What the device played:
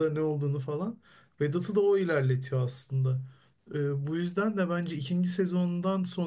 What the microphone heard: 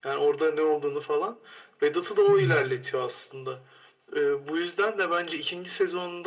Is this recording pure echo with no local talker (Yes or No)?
No